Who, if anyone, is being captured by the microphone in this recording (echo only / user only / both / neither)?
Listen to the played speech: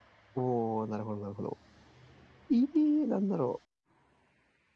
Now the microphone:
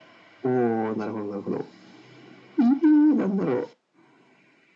echo only